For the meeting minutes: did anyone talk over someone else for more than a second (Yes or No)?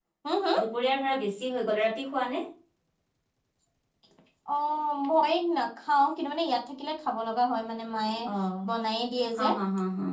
No